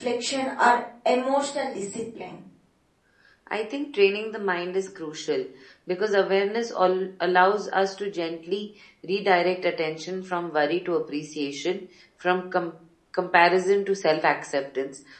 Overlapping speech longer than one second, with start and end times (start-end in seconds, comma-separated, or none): none